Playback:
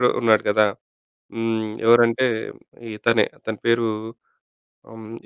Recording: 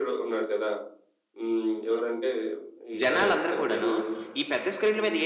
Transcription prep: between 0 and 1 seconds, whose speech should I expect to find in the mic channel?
echo only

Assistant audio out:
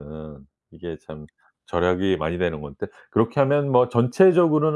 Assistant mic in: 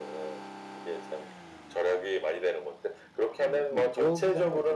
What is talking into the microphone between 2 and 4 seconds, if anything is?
both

